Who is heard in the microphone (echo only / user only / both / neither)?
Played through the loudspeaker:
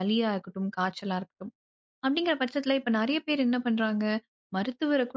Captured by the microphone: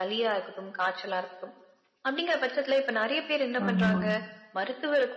both